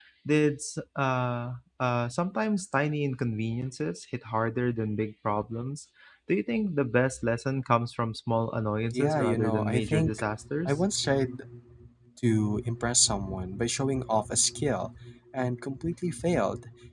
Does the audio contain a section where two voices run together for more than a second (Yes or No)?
Yes